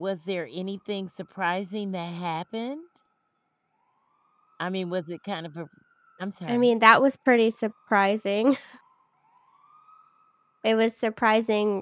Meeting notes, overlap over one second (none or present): none